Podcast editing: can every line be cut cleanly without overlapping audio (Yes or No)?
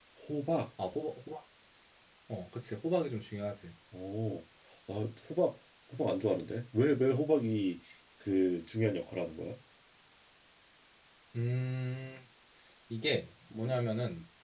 Yes